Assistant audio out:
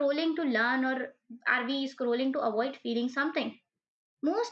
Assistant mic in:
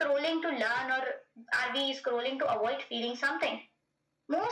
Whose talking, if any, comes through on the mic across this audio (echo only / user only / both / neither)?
echo only